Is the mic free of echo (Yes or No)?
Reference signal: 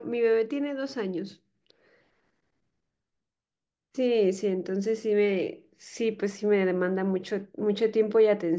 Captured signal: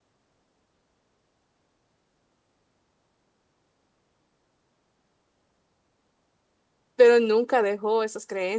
Yes